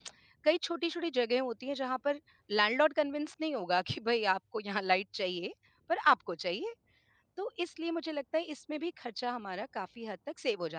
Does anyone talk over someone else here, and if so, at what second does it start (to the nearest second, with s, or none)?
none